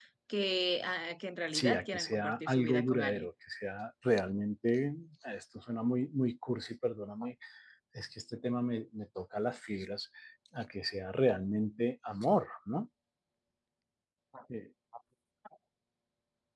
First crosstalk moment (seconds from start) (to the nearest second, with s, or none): 2 s